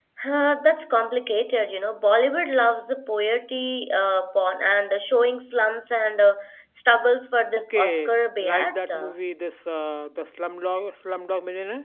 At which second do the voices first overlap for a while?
7.5 s

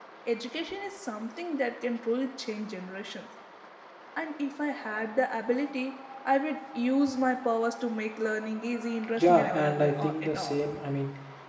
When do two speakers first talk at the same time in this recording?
9.2 s

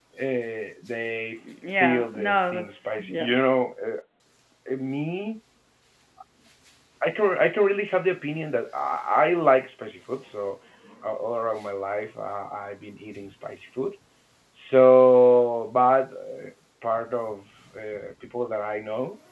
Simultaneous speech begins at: 1.8 s

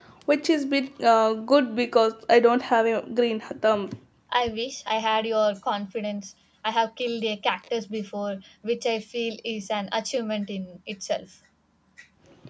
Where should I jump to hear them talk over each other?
none

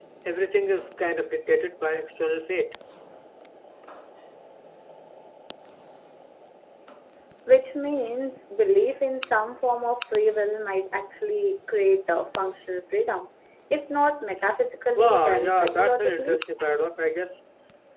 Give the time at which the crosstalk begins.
14.9 s

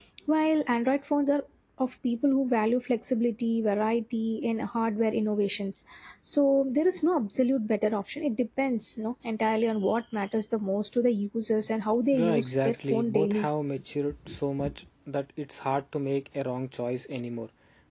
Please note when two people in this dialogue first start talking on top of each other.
12.1 s

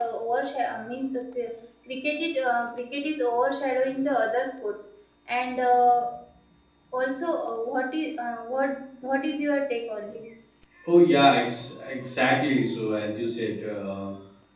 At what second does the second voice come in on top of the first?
none

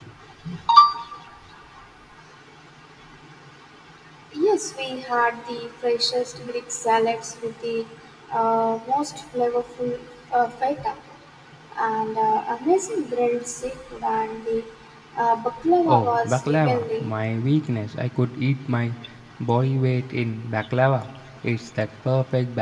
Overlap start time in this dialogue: 15.8 s

